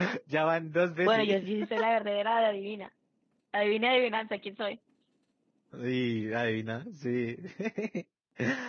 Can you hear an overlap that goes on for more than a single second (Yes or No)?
No